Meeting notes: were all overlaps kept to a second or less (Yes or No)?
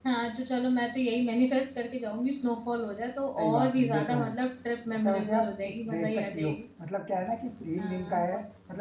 No